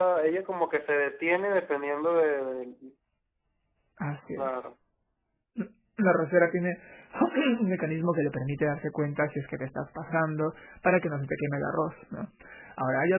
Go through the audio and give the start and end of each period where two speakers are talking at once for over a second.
none

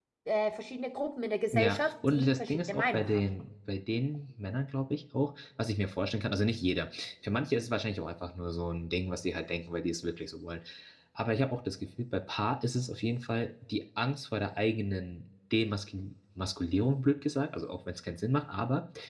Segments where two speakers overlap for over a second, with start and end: 1.5-3.3

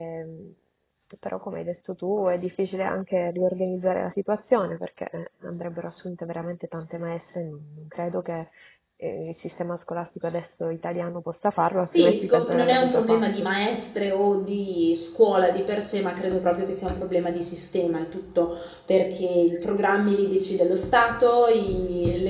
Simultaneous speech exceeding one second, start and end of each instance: 11.8-13.2

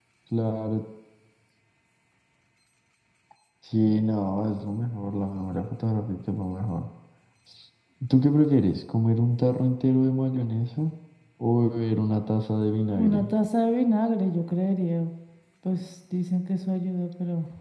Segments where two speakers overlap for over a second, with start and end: none

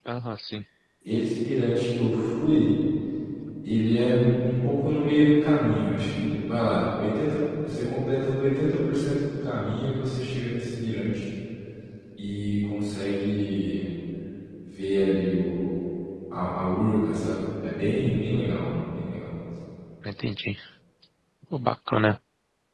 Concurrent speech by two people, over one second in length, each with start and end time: none

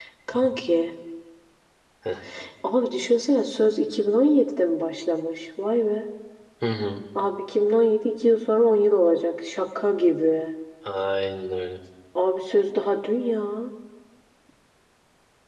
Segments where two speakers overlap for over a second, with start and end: none

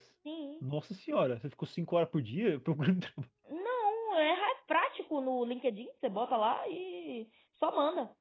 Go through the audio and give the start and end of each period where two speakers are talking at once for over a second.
none

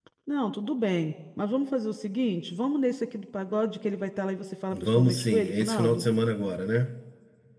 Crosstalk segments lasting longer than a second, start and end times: 4.7-6.0

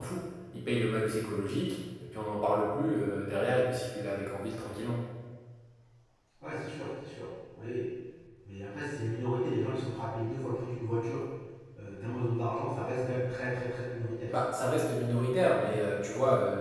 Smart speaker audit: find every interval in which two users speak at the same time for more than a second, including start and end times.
none

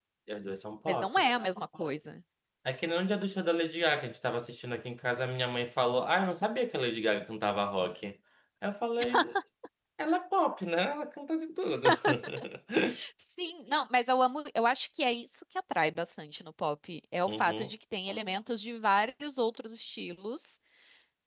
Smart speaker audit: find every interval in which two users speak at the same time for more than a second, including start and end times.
none

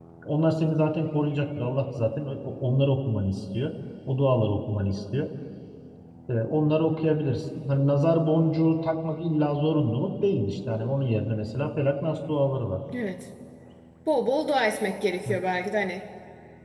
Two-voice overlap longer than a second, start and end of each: none

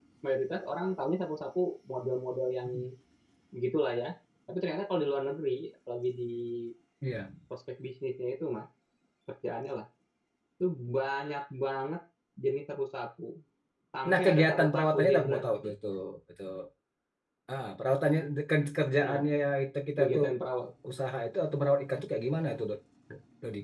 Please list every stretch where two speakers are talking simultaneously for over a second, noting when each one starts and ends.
14.1-15.7

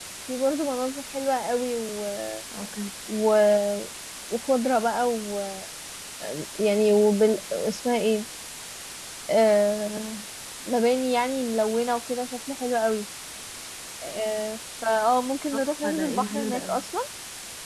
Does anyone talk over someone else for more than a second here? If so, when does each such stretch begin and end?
15.5-16.8

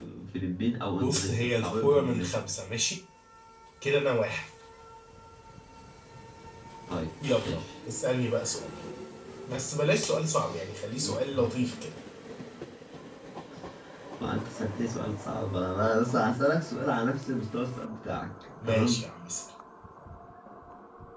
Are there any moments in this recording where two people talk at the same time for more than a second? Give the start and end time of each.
1.0-2.4

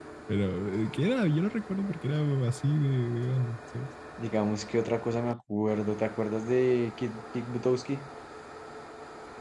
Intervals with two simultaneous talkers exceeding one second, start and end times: none

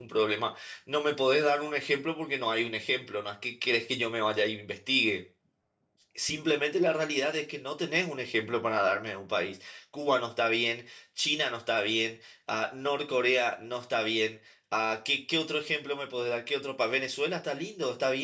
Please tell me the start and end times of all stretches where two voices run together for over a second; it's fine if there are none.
none

